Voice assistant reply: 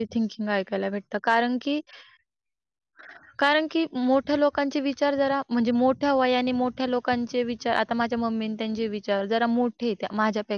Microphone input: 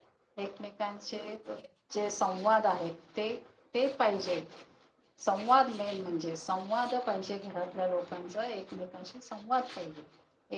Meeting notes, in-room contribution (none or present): present